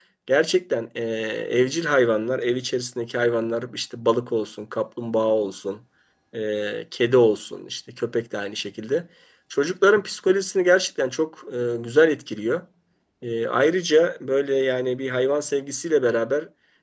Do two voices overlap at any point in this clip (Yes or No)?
No